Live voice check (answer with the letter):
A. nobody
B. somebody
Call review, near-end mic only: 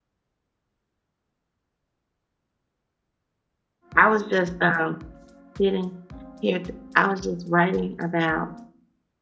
B